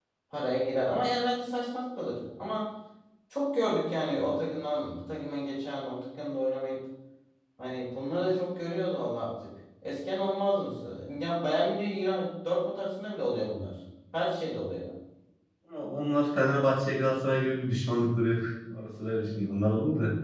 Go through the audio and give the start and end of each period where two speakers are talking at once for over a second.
none

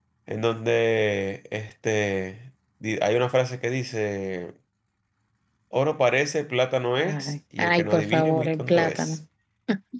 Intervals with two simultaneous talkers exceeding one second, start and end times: 7.0-9.2

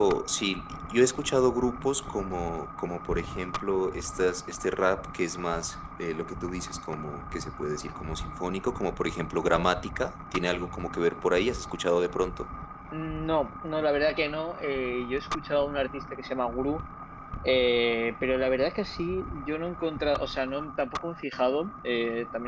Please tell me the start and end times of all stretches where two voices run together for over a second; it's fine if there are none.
none

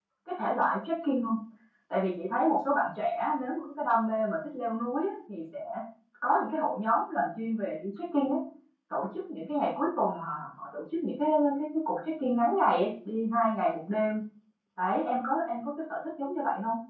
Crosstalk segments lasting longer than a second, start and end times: none

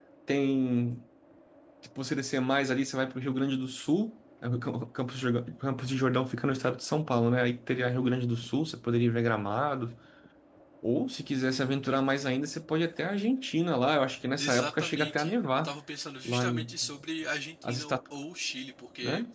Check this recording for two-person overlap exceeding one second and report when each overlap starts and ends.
14.4-15.7

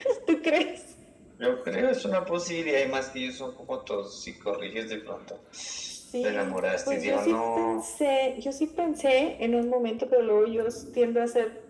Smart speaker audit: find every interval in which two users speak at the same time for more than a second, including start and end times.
6.2-7.8

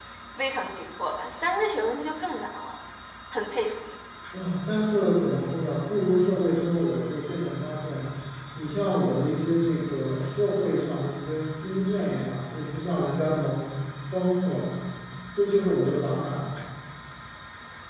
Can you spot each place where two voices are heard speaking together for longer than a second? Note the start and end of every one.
none

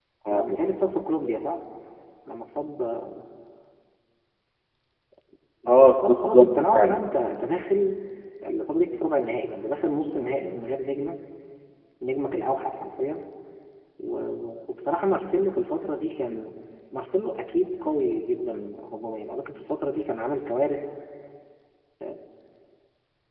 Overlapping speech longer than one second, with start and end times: 5.7-7.0

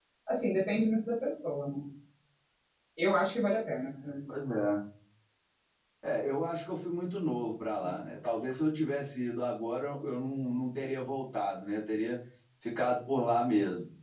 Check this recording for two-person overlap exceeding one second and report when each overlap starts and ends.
none

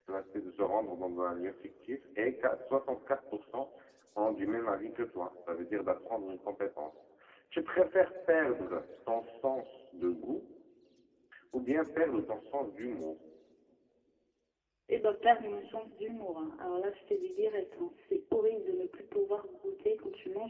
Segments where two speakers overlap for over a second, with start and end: none

